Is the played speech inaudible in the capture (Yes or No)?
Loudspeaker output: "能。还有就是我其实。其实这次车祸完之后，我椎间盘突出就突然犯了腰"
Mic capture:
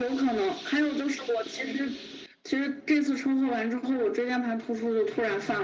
No